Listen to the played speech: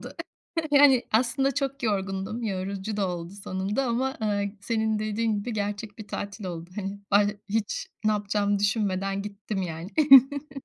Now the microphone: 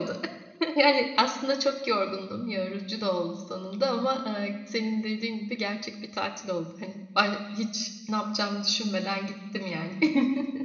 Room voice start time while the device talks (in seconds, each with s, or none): none